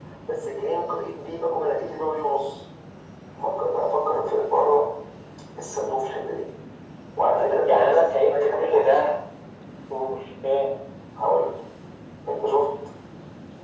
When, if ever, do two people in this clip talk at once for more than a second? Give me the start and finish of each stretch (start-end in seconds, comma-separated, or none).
7.3-9.0